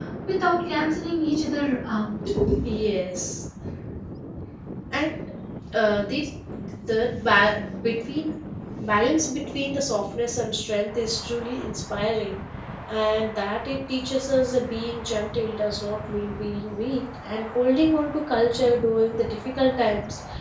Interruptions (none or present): none